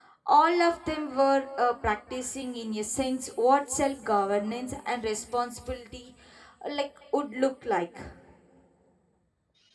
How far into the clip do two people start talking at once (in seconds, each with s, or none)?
none